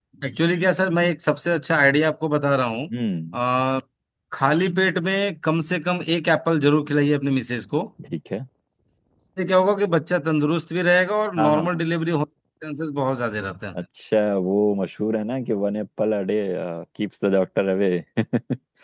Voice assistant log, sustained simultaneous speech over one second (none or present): none